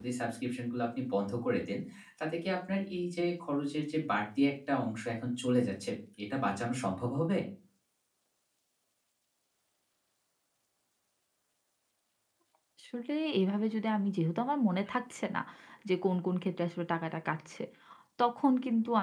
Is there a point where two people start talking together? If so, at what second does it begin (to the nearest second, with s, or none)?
none